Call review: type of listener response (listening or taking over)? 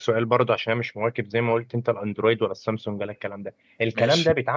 listening